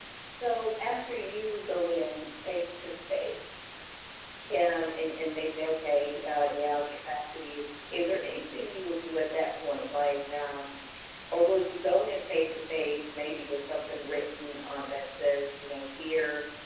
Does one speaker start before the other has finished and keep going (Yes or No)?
No